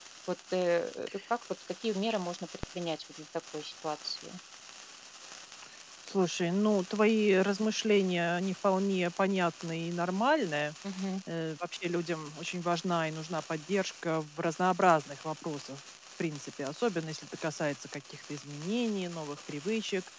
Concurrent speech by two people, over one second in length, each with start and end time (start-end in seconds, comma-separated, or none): none